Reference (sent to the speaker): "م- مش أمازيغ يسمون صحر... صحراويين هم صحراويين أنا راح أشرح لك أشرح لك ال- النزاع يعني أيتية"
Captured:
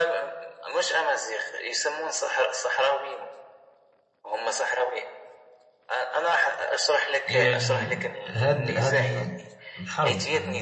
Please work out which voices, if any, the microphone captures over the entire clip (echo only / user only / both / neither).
both